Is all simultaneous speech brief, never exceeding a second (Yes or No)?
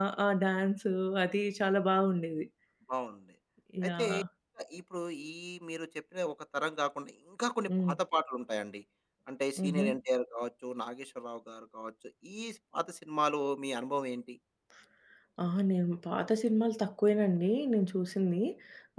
Yes